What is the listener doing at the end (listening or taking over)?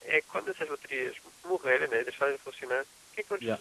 listening